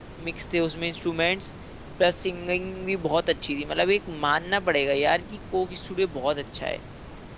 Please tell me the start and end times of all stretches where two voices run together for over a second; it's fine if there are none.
none

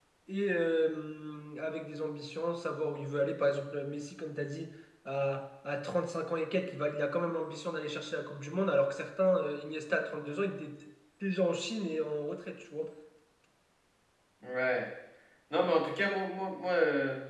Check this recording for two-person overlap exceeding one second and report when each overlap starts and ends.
none

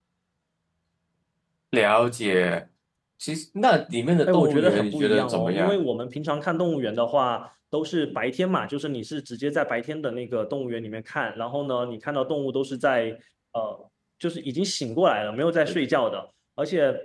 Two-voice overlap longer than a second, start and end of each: 4.3-5.8

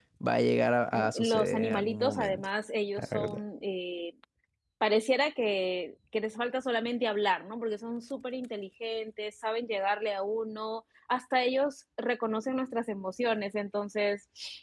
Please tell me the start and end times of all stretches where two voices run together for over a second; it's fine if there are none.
0.9-2.5

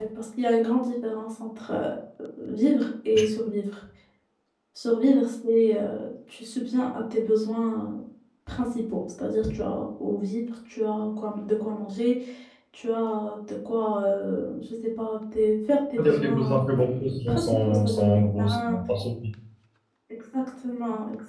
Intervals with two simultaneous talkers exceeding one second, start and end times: 16.0-18.8

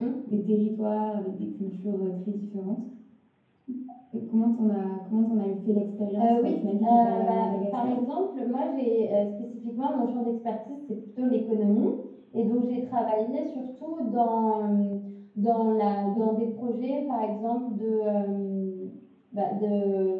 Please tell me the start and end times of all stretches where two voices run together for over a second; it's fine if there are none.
6.2-7.9

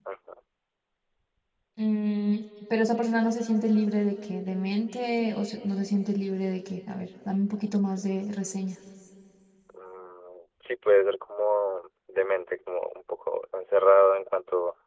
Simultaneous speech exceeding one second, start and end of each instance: none

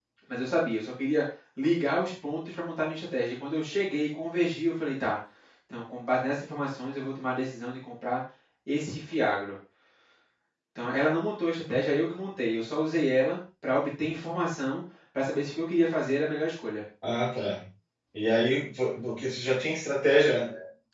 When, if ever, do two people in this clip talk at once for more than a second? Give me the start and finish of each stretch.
none

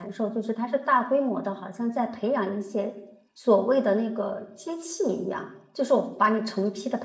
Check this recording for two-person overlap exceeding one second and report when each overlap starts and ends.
none

